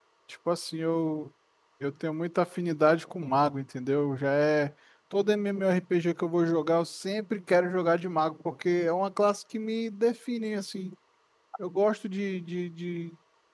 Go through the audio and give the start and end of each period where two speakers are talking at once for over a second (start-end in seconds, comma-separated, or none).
none